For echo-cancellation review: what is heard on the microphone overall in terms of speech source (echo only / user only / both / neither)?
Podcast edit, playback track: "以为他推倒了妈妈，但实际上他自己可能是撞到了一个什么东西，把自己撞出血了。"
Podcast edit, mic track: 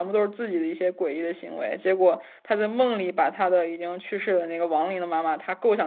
user only